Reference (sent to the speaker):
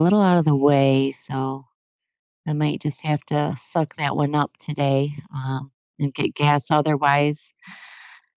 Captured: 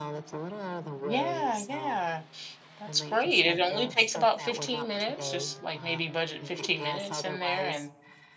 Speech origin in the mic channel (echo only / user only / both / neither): both